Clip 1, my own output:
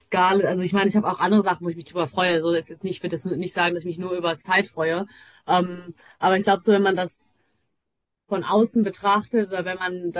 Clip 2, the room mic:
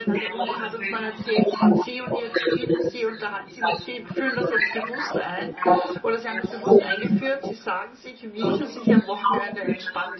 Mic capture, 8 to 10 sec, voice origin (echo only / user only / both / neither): both